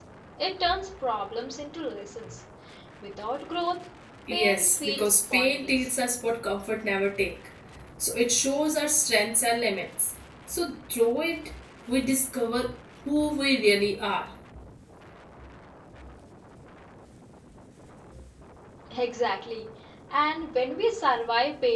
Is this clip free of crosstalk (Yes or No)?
No